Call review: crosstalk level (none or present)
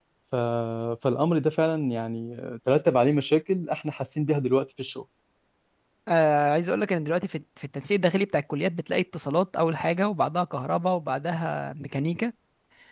none